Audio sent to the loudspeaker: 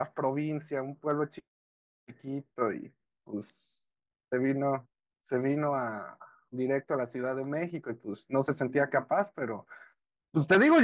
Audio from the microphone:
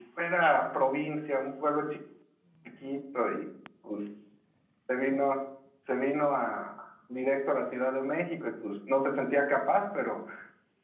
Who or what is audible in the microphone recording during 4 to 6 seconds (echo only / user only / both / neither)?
echo only